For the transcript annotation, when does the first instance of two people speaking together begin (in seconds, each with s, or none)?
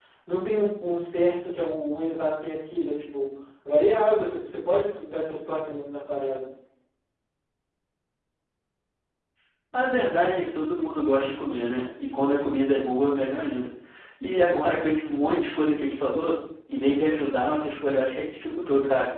none